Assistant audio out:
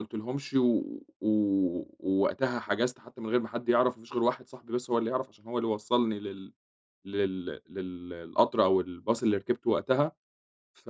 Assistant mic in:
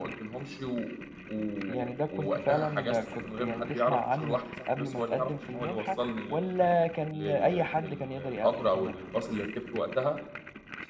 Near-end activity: present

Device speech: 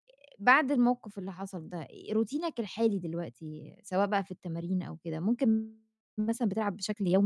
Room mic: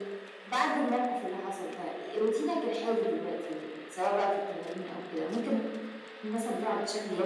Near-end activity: none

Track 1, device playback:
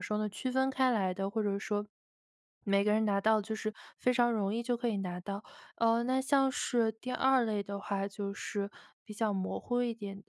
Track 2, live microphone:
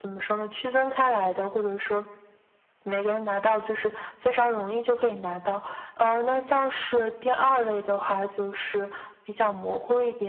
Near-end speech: none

